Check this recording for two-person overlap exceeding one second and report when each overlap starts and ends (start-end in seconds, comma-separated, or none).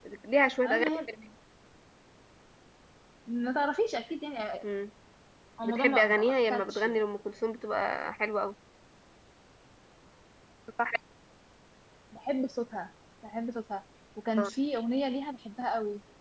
5.6-7.0